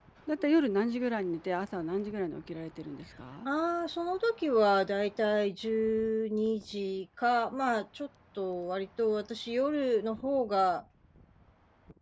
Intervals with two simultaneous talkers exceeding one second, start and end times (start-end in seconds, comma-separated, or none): none